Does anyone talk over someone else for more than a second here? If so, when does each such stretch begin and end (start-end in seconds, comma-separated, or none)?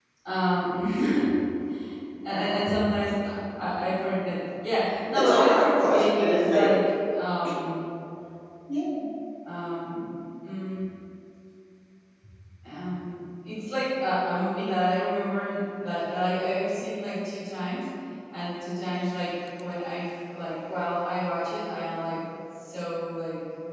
5.2-6.7